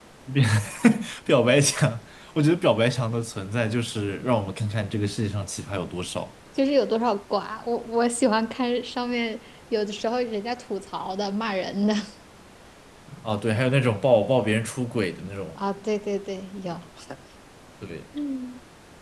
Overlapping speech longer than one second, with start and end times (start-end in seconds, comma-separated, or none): none